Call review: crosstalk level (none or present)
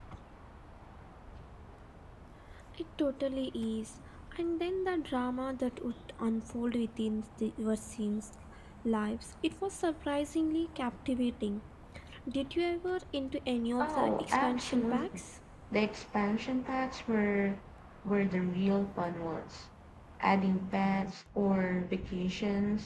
present